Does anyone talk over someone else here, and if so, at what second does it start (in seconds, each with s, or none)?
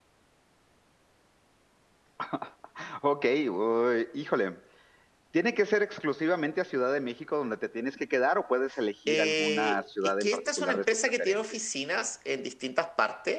9.1 s